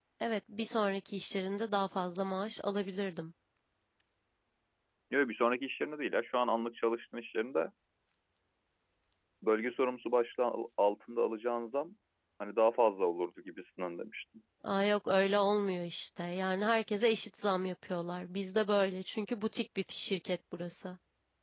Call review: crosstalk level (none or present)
none